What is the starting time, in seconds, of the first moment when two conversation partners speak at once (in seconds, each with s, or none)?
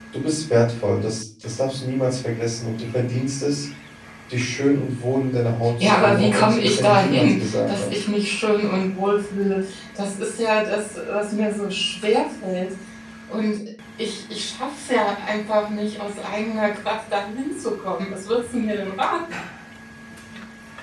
5.6 s